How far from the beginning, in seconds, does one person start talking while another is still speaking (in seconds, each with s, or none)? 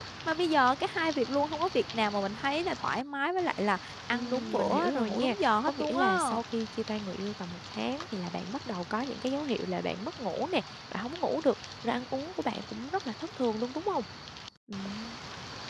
4.1 s